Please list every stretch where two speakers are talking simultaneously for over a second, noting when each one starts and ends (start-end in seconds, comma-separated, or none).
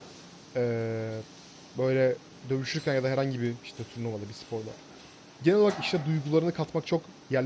none